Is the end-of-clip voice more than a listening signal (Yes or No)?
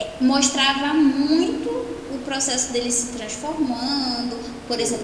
No